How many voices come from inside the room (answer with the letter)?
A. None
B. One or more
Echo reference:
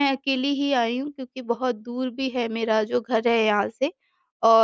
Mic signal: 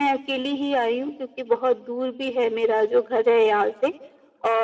A